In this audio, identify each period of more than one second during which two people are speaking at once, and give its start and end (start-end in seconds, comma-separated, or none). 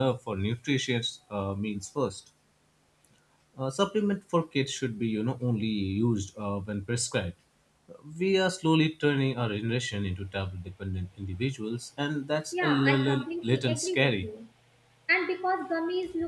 12.5-14.3